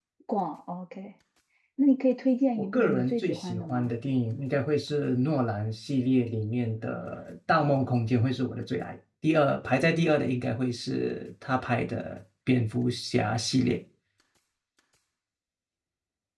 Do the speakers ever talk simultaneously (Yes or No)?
Yes